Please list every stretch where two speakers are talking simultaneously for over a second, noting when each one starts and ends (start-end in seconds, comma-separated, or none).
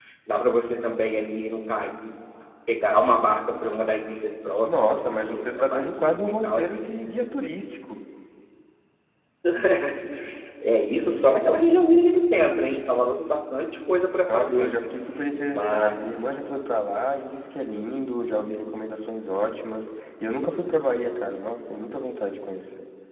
4.6-6.6